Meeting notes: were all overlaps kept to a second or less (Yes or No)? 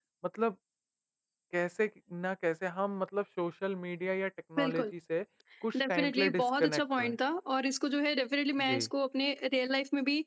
No